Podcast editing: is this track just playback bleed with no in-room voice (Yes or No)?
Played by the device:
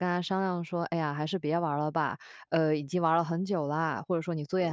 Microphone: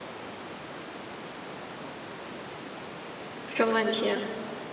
No